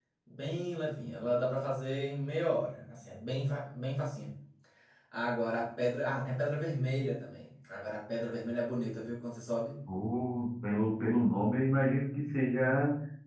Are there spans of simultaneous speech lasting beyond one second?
No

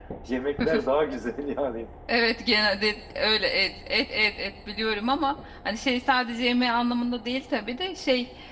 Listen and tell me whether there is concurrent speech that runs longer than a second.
No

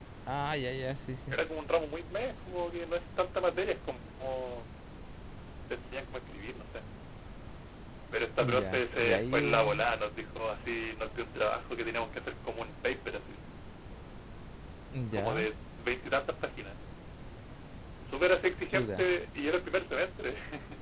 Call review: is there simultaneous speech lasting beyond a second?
Yes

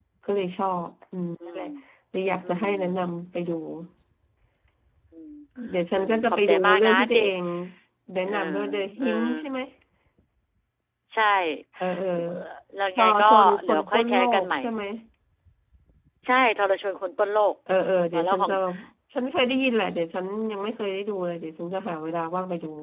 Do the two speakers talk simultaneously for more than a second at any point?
Yes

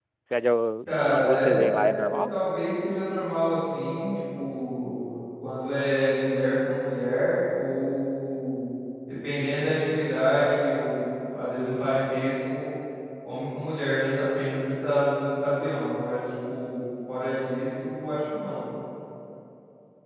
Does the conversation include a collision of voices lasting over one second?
Yes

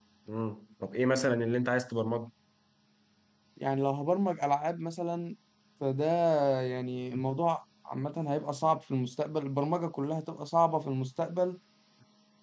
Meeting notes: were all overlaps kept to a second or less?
Yes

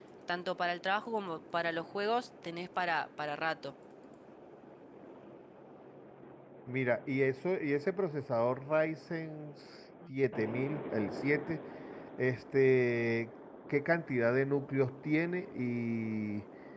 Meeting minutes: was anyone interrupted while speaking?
No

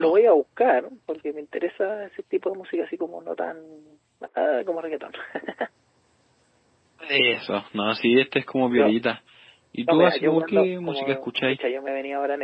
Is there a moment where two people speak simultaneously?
Yes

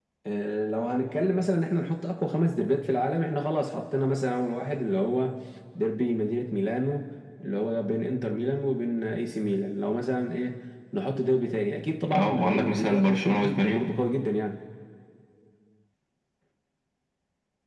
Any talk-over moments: Yes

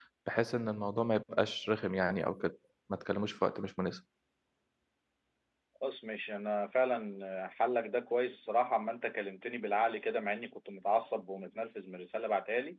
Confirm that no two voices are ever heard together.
Yes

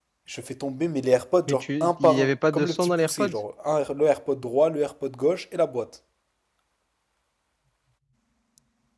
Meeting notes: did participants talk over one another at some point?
Yes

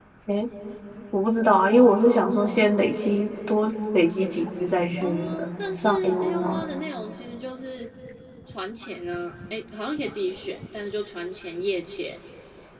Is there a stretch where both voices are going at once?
Yes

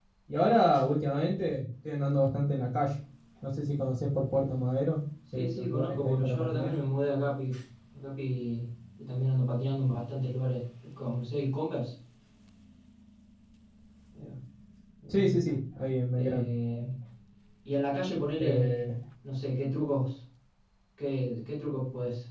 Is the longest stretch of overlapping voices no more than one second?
No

